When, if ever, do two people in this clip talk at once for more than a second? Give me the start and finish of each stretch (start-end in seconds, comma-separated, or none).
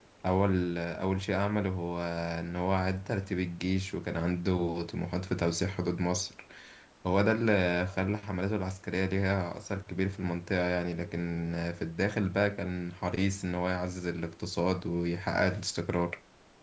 none